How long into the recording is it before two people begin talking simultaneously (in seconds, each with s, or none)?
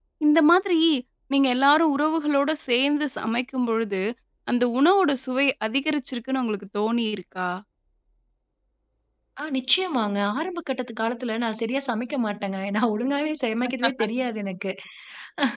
none